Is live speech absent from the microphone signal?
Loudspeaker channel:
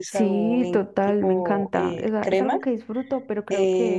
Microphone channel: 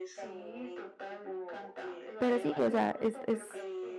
No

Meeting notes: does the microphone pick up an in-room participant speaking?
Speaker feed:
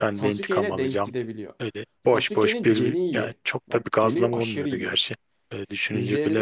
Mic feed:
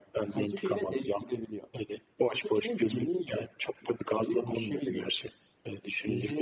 No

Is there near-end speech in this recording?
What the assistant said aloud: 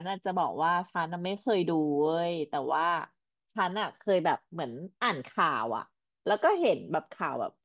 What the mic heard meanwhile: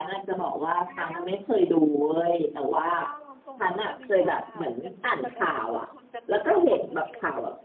Yes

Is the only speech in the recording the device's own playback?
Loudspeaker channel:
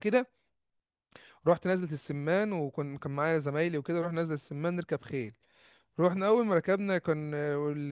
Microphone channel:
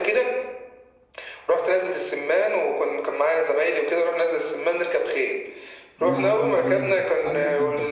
No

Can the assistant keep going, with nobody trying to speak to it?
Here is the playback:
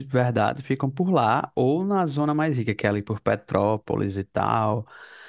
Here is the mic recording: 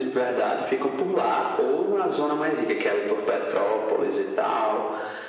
Yes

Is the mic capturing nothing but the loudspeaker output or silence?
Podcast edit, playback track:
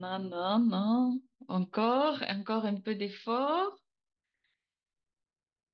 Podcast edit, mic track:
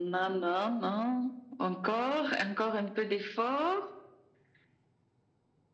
Yes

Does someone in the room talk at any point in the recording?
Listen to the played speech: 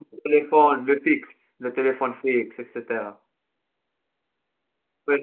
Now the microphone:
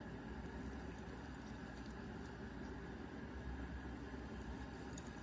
No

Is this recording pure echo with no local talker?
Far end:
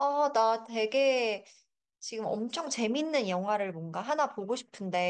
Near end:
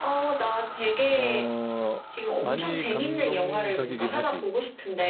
No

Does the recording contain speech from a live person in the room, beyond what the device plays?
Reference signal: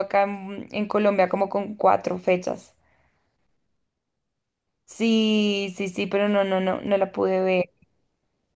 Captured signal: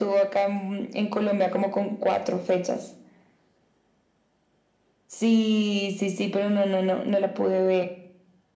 No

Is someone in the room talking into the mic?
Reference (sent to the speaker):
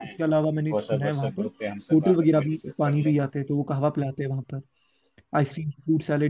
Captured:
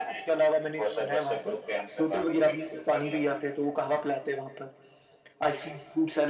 No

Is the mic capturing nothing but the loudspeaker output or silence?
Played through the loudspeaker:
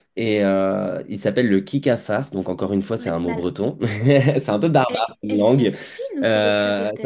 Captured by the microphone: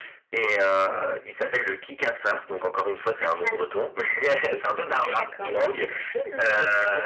No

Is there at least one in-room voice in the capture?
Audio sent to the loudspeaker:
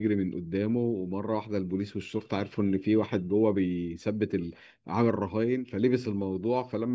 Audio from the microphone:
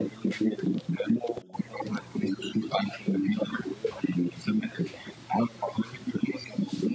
No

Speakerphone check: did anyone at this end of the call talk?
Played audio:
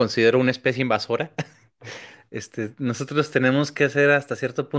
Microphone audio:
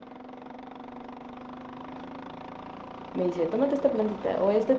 Yes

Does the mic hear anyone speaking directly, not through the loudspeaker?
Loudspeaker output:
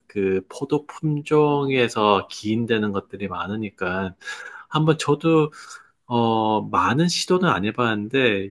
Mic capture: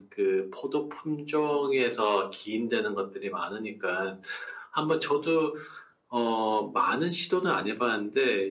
No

